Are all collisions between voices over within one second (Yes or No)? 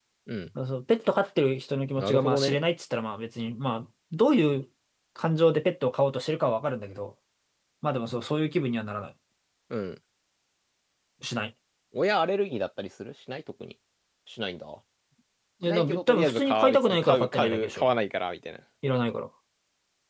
No